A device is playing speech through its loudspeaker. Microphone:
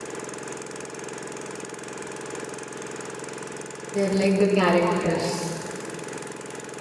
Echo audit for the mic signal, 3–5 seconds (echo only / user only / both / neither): user only